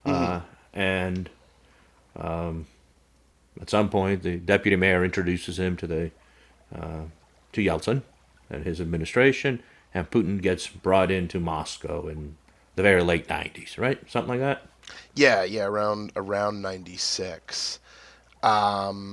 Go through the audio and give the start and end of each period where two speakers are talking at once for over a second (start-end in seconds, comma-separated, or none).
none